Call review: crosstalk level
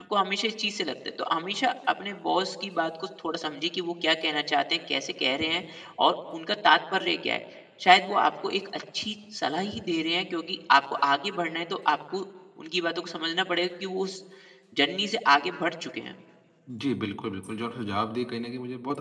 none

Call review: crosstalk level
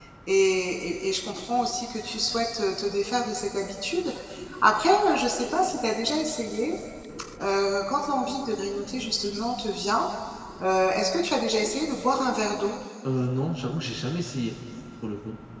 none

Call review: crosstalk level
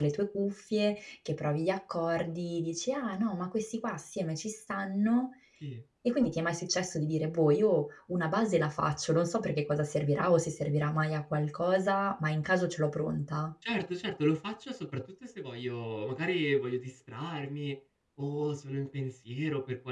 none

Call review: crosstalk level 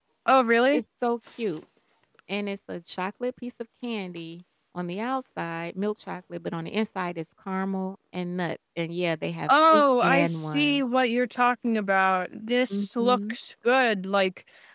present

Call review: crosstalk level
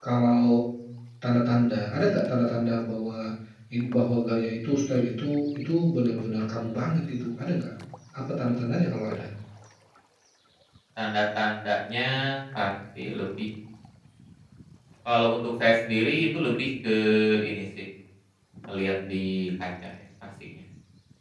none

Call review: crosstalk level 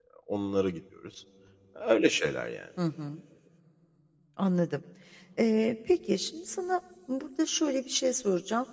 none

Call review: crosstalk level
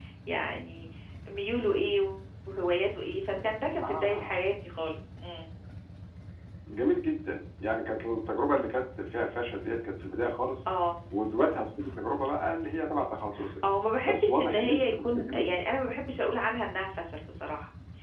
present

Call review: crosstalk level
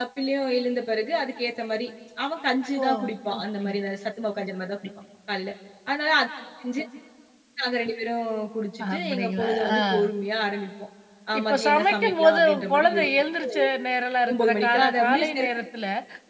present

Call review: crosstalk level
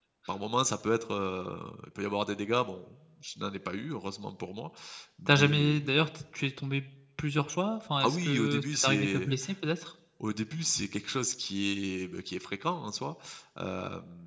present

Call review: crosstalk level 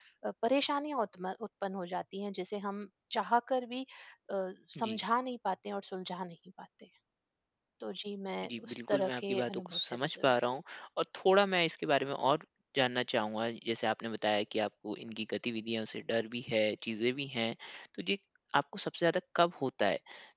present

